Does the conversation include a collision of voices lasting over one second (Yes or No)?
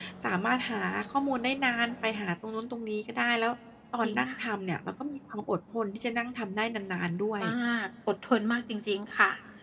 No